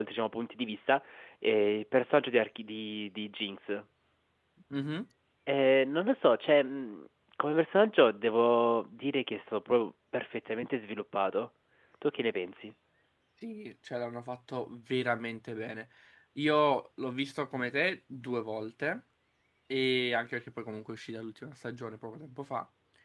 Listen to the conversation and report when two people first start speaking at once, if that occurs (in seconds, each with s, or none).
none